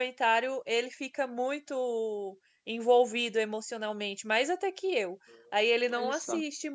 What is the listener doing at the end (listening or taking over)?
listening